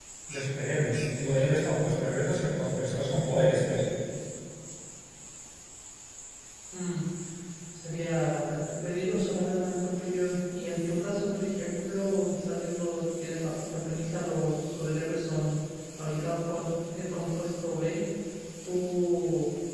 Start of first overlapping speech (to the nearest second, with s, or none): none